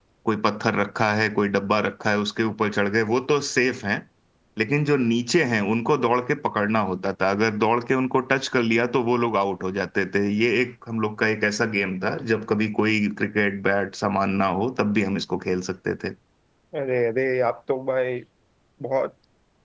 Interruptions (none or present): none